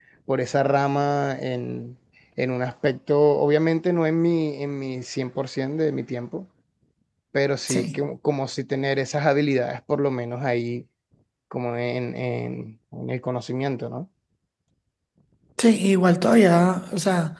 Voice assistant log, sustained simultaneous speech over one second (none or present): none